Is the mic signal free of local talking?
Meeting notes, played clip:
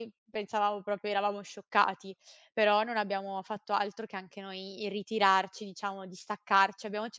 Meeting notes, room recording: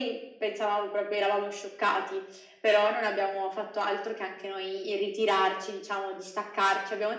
Yes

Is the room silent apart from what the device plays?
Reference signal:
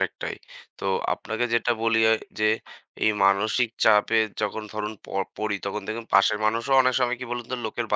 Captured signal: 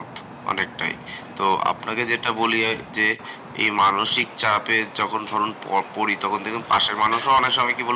Yes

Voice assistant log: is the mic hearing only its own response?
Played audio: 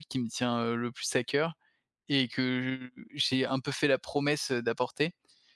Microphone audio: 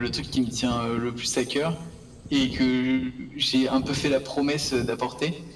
Yes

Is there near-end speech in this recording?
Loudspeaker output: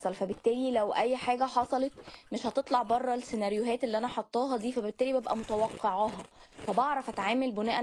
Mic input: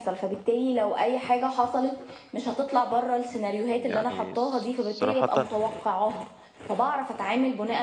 Yes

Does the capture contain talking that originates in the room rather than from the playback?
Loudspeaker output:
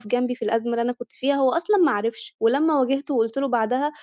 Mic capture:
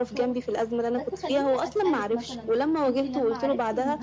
Yes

